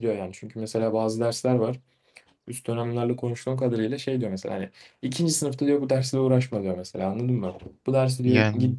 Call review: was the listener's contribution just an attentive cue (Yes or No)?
Yes